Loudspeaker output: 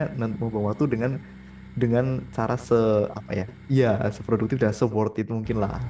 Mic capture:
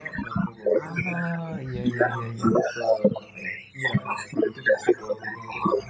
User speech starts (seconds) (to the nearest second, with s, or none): 1 s